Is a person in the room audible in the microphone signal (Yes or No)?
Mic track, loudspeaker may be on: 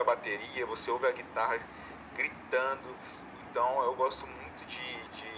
No